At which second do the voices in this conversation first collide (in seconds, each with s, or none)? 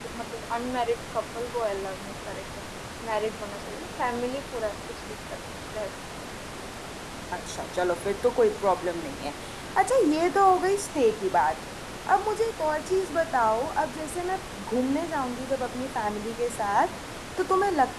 none